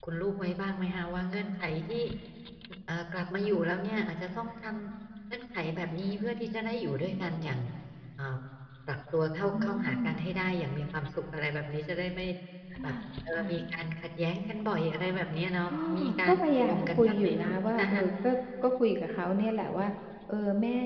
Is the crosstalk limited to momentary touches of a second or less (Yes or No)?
No